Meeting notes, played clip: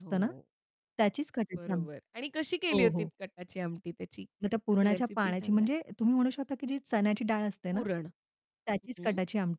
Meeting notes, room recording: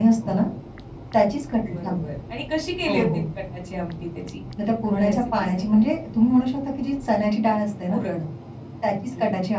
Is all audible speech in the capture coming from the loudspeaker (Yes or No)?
Yes